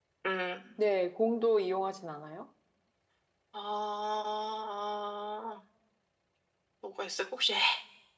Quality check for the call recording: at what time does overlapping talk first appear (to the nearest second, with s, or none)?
none